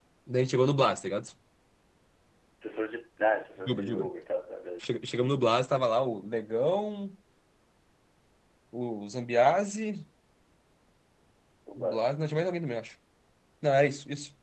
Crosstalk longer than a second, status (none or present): none